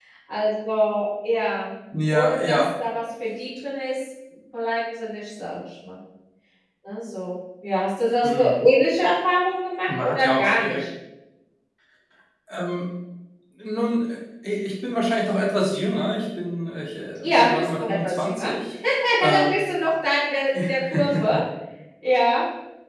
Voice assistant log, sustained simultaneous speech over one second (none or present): present